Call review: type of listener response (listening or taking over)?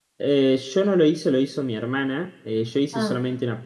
listening